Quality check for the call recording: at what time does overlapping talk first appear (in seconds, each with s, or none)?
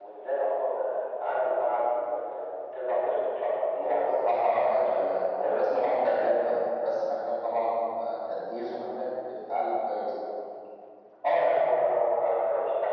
3.8 s